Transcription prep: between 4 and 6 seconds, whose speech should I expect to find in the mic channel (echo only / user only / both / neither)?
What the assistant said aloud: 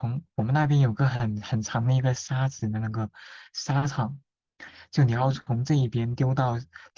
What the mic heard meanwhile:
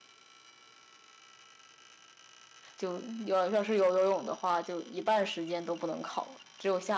user only